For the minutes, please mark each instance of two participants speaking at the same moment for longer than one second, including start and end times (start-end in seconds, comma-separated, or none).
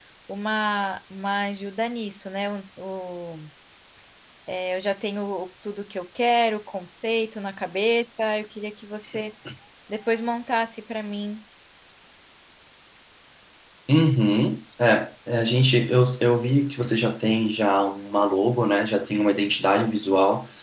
none